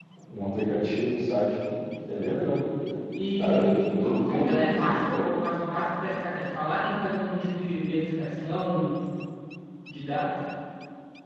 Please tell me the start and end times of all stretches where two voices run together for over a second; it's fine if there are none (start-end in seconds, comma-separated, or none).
3.4-5.0